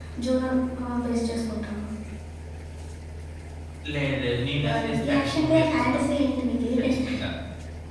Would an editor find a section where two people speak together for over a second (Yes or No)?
Yes